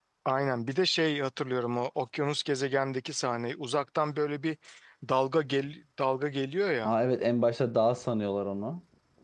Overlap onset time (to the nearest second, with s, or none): none